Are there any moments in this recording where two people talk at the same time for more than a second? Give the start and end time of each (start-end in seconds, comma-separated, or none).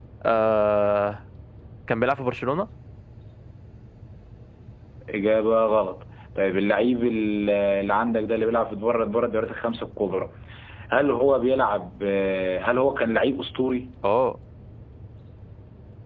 none